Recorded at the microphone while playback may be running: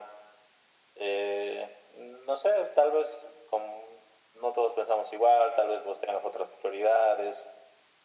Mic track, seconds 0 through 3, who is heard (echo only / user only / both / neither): echo only